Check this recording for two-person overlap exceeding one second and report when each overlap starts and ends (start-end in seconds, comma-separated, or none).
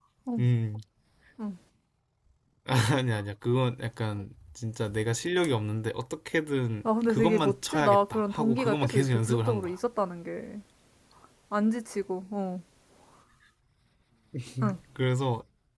6.8-9.8